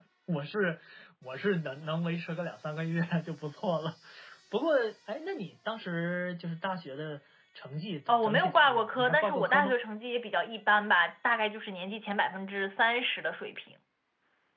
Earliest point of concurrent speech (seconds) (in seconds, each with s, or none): 8.1 s